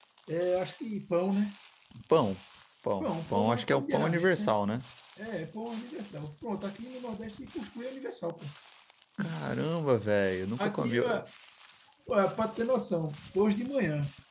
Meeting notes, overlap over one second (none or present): present